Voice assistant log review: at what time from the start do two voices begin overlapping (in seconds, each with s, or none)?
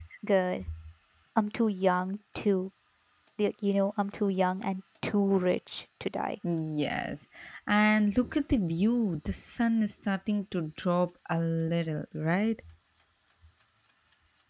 none